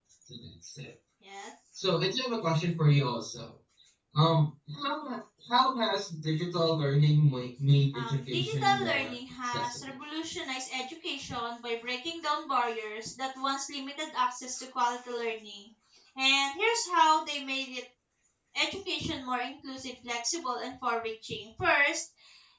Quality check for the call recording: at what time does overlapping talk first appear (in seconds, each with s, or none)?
7.9 s